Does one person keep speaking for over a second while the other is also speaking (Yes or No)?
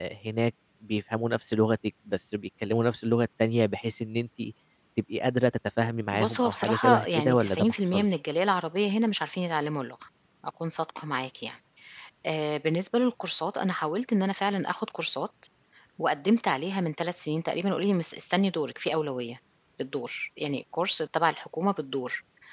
Yes